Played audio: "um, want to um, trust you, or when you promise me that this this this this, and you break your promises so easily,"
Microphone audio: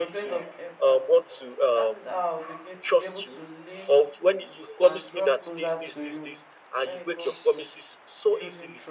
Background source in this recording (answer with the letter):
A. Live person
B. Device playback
A